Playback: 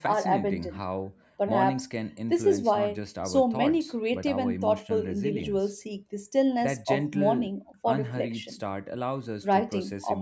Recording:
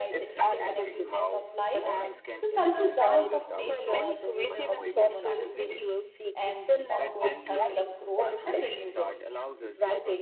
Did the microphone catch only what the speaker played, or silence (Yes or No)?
No